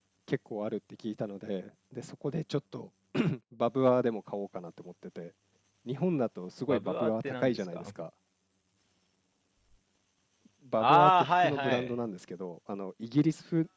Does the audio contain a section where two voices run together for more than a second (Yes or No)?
Yes